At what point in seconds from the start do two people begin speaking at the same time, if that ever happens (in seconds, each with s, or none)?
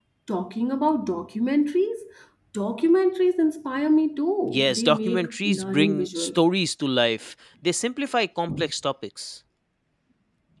4.4 s